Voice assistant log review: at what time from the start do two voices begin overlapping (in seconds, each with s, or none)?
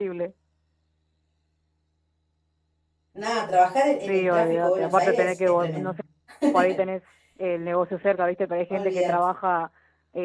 4.0 s